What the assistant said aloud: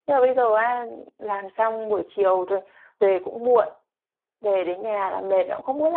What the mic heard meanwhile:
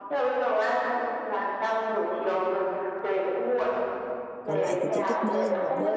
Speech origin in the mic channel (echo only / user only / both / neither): both